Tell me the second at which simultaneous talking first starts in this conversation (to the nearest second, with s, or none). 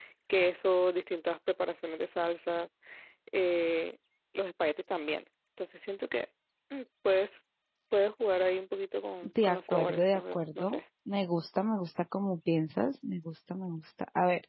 9 s